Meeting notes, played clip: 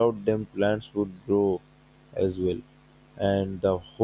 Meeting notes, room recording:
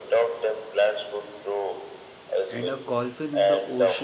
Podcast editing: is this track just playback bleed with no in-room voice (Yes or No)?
No